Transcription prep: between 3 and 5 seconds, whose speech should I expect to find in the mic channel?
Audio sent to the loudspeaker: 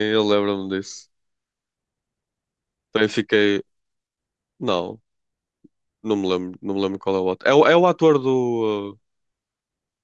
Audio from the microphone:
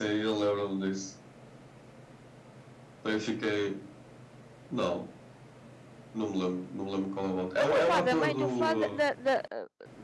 echo only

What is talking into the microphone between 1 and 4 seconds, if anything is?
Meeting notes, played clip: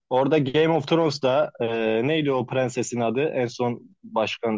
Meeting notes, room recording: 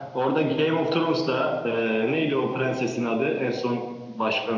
echo only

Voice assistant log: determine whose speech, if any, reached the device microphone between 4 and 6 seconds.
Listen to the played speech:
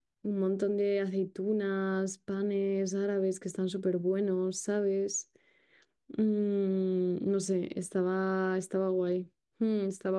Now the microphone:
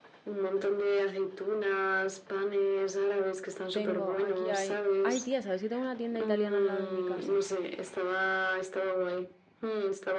both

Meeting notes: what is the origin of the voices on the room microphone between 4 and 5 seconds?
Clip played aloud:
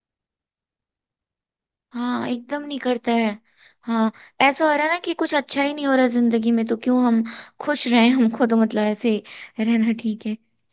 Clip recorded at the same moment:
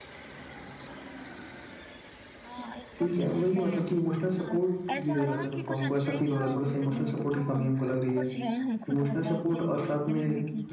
both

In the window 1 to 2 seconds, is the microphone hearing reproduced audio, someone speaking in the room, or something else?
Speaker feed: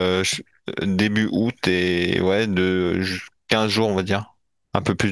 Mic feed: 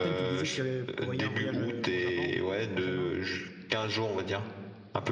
both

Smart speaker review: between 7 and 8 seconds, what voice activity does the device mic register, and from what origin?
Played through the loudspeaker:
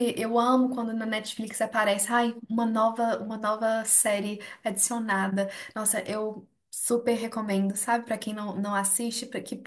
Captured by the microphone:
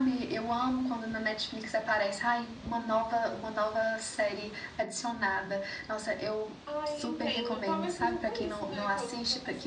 both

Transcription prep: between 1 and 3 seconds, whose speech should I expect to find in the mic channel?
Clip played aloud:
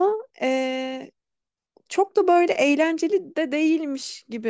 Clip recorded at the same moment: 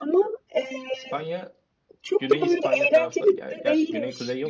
both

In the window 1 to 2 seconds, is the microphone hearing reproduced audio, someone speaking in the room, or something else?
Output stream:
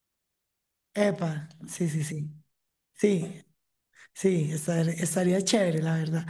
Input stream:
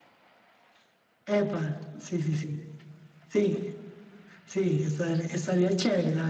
echo only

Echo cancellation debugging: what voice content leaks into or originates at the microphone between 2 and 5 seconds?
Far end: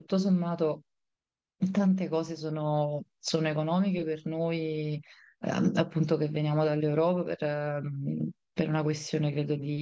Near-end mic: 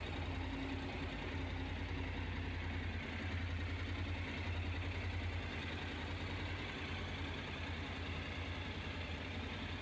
neither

